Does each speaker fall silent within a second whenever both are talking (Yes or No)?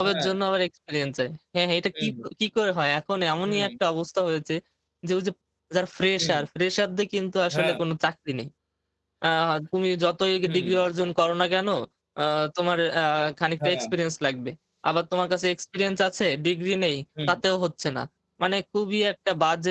Yes